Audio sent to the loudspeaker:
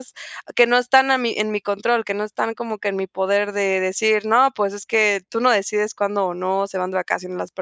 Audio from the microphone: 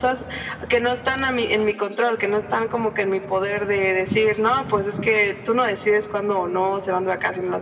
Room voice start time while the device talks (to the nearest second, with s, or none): none